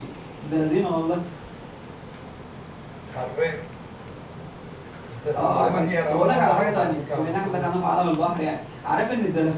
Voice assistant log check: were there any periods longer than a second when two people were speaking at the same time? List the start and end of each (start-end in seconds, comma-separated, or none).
5.3-7.7